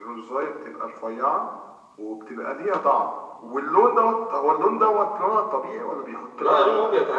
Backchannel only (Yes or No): No